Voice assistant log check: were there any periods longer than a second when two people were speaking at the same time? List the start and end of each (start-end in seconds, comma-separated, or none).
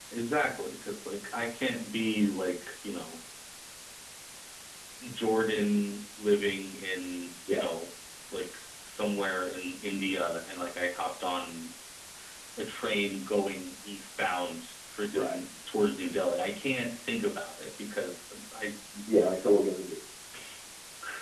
none